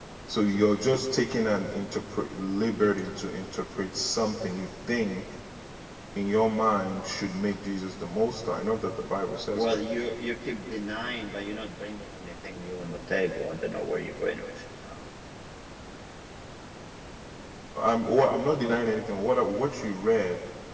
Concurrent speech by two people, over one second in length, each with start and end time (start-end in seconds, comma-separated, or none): none